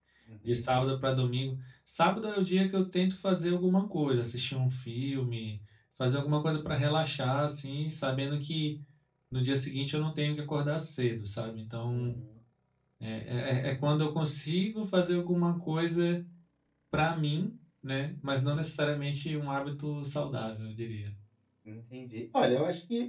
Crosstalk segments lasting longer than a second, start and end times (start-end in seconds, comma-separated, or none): none